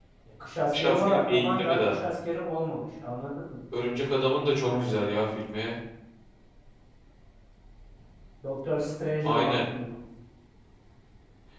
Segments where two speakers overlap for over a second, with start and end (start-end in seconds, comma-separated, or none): 0.8-2.0